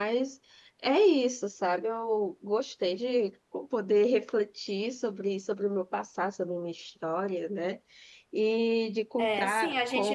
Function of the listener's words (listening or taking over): taking over